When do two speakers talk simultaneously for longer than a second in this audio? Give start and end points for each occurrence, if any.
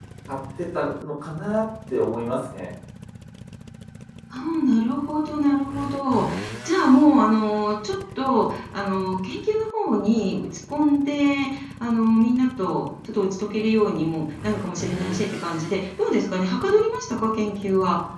none

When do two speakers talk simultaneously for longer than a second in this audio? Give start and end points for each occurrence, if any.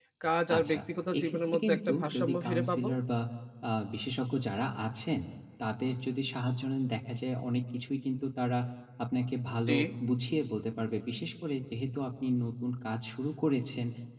1.2-2.9

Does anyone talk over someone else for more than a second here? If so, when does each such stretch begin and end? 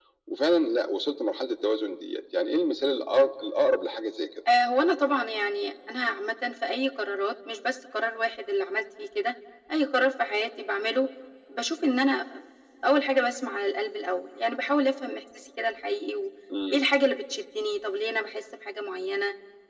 none

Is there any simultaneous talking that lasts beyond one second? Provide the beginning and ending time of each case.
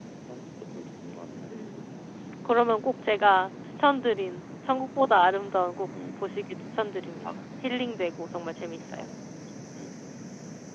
none

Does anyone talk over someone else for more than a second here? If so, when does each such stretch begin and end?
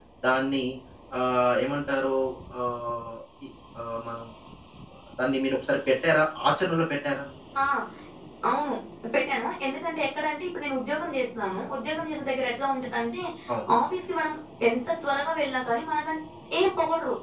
none

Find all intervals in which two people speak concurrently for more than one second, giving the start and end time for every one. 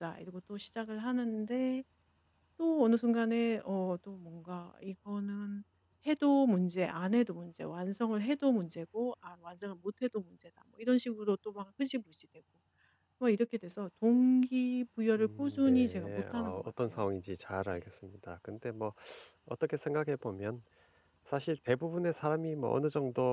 15.2-17.0

